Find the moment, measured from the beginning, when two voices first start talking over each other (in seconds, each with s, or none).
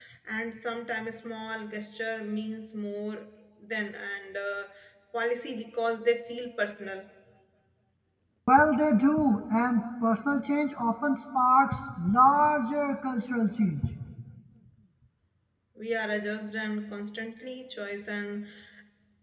none